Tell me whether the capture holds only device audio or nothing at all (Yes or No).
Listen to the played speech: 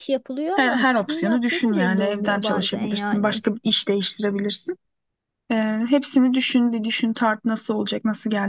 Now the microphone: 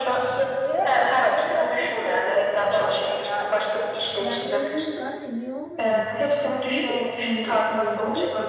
No